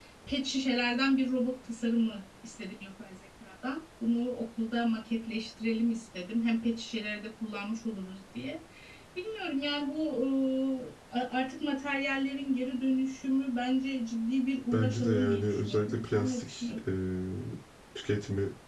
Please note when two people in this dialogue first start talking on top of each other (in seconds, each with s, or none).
14.7 s